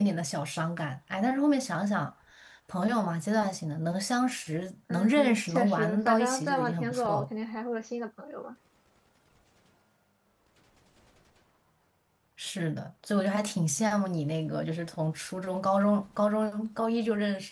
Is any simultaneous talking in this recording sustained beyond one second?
Yes, from 4.9 s

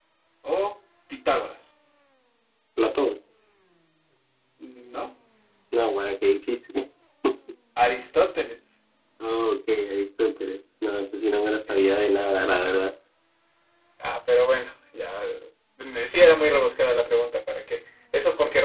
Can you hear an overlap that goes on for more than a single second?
No

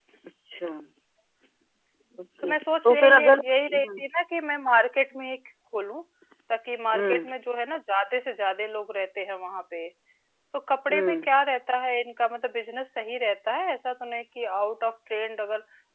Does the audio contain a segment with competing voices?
Yes, from 2.4 s

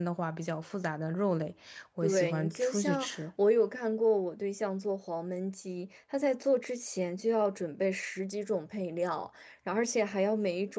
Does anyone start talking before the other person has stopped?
Yes, from 2.0 s

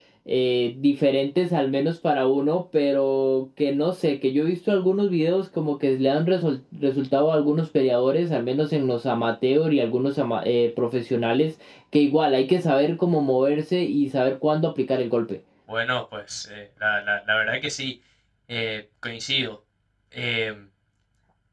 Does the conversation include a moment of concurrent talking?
No

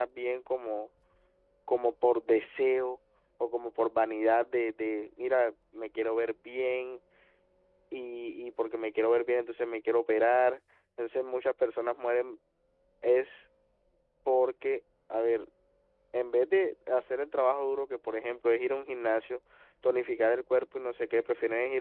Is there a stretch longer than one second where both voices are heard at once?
No

